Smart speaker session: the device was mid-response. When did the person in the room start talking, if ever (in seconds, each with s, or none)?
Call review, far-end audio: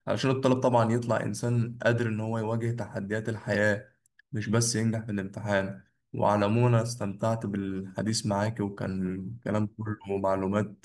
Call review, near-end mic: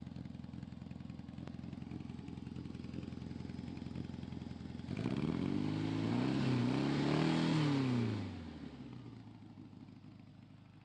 none